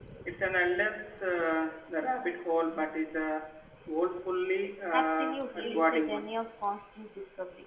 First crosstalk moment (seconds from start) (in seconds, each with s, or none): 4.9 s